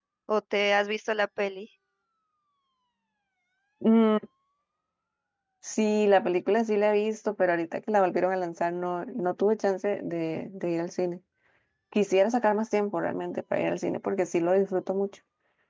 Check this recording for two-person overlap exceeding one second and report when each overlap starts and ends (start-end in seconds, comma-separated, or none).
none